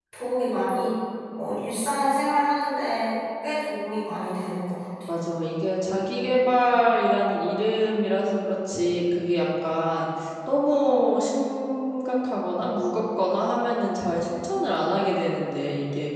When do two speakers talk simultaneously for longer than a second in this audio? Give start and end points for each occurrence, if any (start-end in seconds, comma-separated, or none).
none